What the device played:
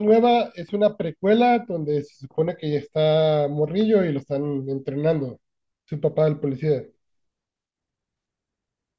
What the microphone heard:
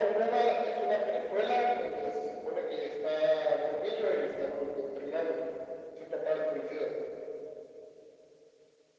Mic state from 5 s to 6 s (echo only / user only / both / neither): echo only